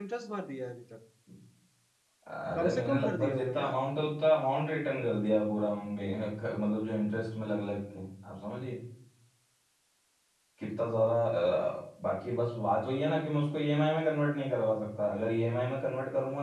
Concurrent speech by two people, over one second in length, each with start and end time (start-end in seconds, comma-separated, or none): 2.5-3.8